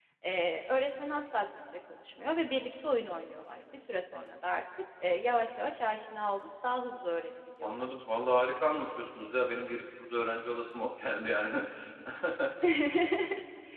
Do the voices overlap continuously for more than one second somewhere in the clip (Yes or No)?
No